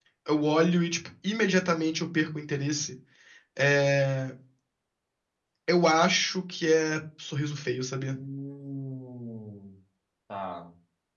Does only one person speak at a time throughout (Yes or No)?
Yes